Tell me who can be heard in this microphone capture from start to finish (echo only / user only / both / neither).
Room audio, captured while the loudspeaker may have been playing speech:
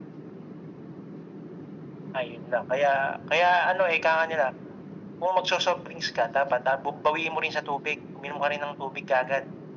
echo only